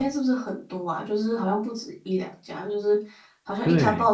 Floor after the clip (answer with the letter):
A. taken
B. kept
B